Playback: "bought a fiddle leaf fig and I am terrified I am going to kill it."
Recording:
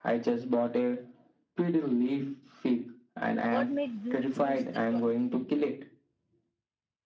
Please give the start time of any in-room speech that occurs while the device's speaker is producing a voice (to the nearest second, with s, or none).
3 s